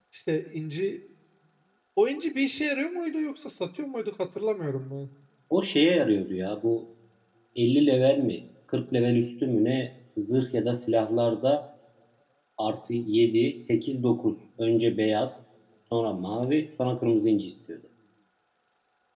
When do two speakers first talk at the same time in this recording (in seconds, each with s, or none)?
none